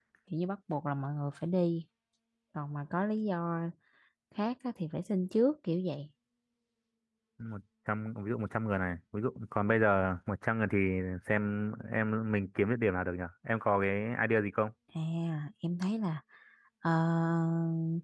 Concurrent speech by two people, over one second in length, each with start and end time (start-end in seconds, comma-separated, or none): none